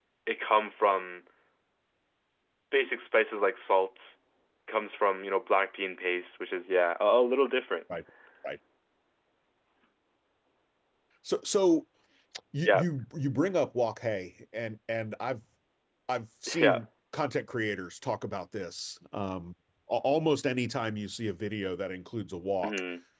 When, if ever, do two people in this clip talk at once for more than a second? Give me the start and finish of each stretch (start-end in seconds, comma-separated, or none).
none